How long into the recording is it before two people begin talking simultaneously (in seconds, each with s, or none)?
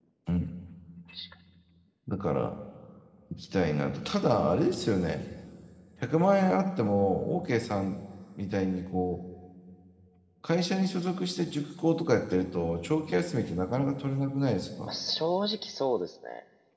none